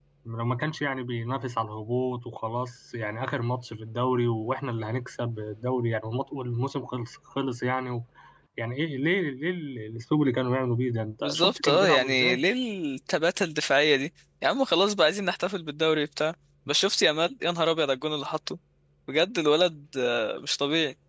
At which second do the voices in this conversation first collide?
11.2 s

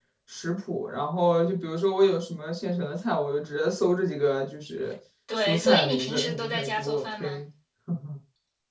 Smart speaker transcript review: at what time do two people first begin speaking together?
5.3 s

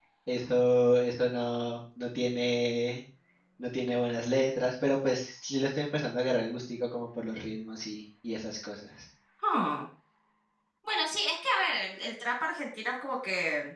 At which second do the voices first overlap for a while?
none

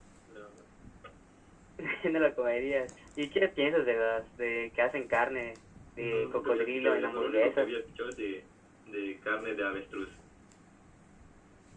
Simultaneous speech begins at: 6.0 s

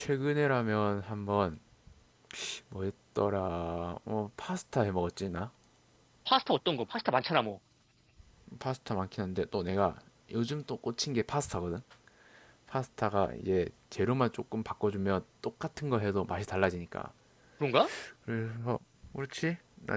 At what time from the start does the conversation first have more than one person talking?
none

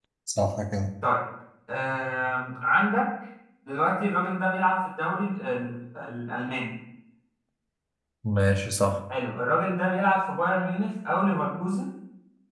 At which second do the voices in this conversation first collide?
none

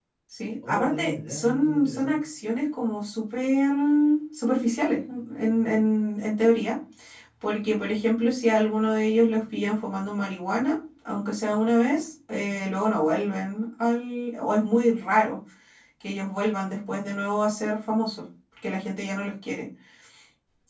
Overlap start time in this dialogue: 0.7 s

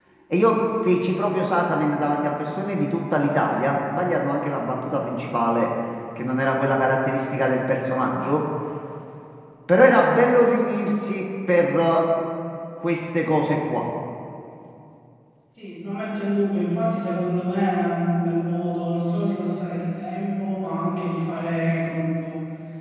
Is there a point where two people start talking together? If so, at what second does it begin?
none

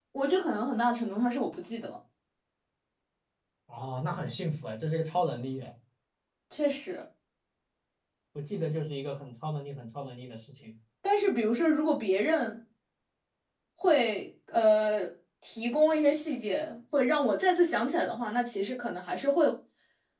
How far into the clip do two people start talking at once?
none

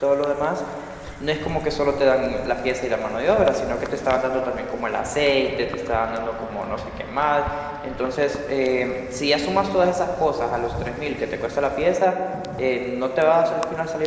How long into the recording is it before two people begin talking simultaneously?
none

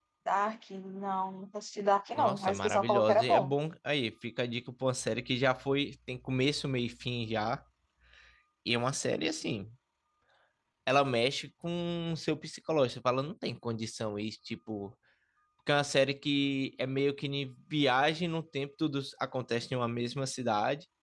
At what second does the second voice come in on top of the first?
2.1 s

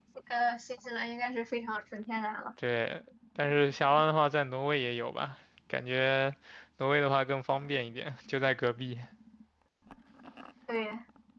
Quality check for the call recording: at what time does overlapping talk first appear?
none

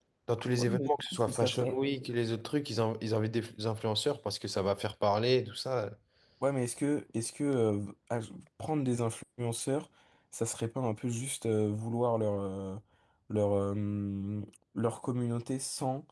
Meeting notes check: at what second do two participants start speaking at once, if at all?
0.6 s

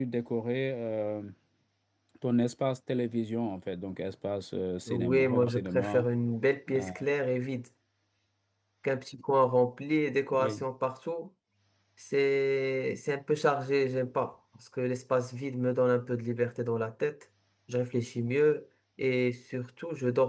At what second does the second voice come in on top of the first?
4.9 s

